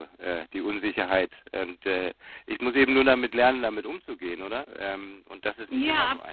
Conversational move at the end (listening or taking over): taking over